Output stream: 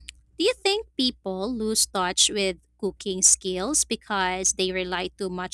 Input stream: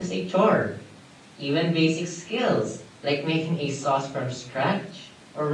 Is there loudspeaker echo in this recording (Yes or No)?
No